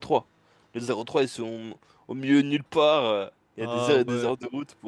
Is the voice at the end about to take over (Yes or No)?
No